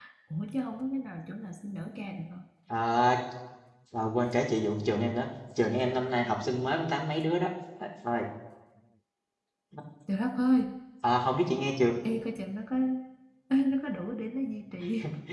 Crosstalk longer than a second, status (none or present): none